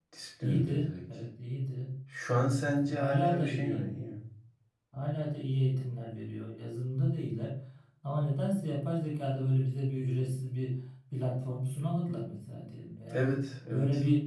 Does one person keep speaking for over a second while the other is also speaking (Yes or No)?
Yes